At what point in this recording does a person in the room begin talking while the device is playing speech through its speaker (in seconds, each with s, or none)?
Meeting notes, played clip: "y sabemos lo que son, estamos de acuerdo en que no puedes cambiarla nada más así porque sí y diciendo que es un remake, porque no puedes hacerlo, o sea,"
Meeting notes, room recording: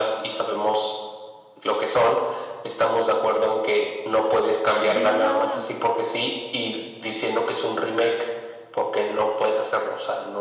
4.8 s